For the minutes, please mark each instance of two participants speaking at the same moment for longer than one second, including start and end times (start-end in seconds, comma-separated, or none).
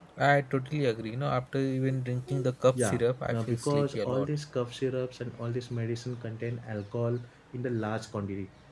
2.8-4.3